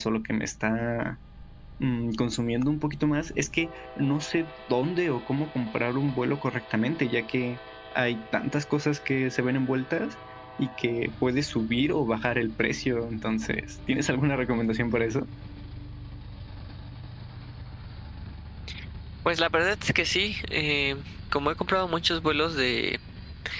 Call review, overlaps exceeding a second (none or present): none